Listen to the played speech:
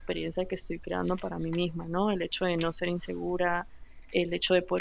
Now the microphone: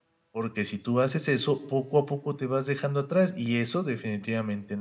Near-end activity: present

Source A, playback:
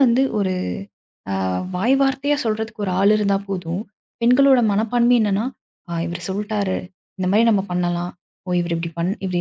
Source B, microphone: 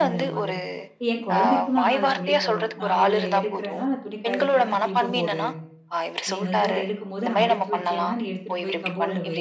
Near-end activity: present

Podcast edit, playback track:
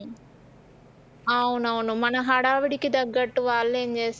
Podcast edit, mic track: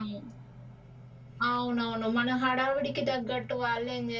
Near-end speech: none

